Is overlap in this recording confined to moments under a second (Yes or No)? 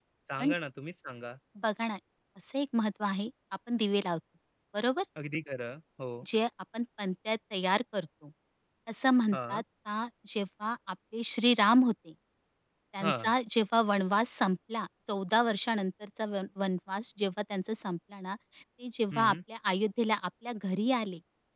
Yes